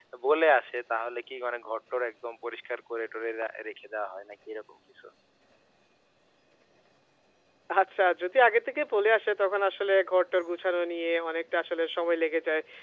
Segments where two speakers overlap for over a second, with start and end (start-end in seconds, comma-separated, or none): none